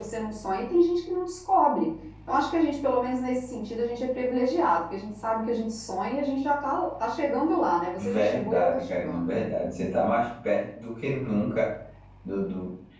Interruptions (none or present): present